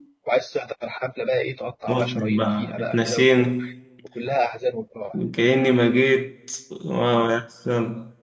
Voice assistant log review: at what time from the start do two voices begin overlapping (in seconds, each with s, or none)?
1.9 s